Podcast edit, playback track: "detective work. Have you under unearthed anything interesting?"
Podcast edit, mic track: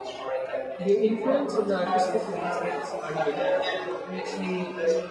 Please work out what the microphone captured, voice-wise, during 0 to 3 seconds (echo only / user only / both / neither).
both